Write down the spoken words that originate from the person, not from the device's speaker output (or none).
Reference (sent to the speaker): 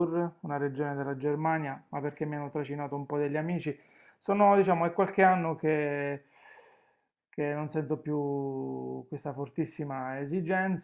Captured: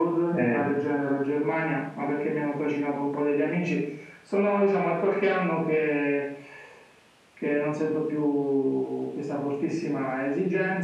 eh,